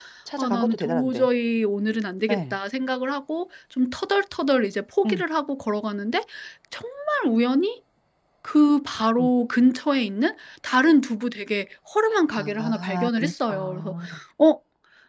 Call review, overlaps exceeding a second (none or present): present